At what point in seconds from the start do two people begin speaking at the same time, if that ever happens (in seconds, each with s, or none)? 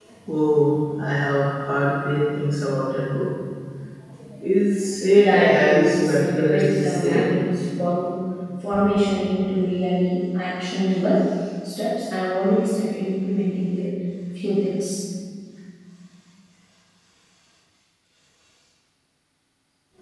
5.2 s